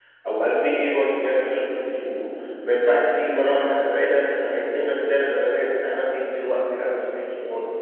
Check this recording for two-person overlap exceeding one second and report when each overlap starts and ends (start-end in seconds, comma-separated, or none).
none